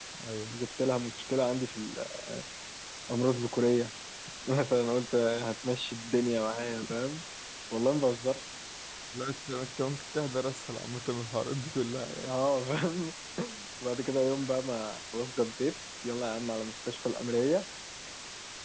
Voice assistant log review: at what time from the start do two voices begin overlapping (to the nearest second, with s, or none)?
none